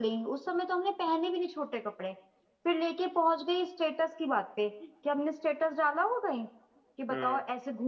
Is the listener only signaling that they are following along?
Yes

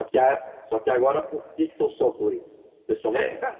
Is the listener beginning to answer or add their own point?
No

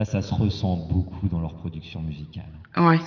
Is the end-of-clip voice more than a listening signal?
No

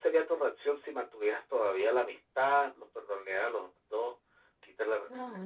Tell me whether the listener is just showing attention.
No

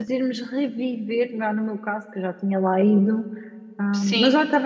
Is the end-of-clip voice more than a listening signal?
No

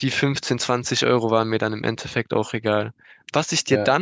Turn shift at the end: No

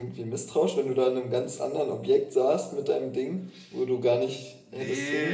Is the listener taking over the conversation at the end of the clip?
Yes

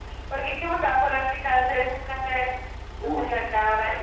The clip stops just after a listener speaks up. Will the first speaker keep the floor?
No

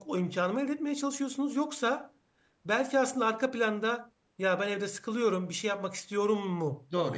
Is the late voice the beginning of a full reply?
Yes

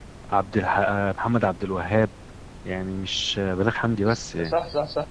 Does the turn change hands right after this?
Yes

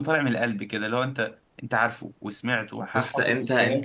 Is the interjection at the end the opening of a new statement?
Yes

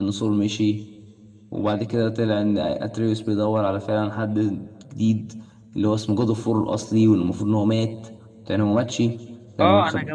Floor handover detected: Yes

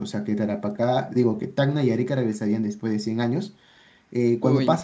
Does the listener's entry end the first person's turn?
No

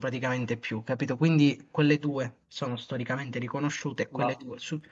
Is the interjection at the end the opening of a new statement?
No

